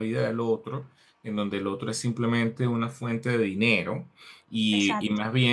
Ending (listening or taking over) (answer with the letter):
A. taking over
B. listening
B